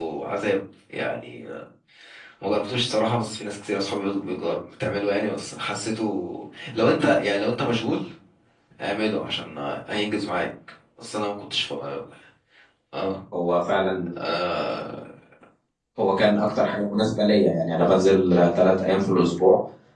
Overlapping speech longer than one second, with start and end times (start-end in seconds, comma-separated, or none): none